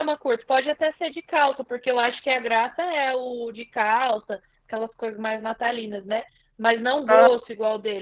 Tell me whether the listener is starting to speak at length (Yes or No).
No